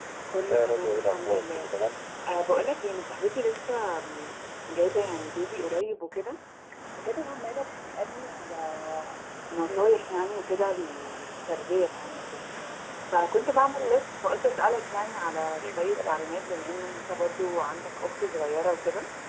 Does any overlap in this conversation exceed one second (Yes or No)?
Yes